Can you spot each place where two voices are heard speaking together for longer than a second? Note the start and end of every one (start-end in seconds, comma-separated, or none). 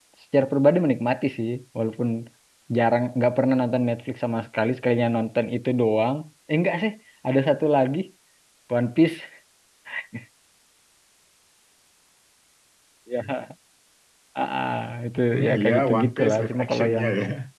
15.3-17.1